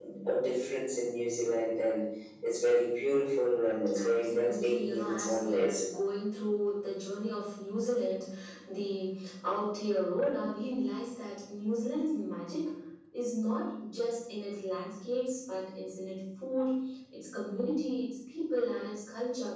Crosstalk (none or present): present